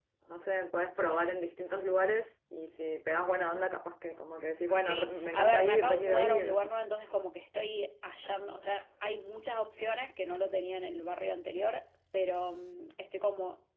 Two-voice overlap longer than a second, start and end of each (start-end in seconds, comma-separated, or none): 4.7-6.6